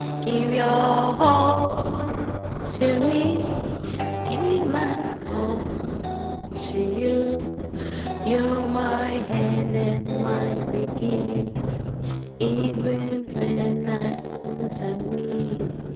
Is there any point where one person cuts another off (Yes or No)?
No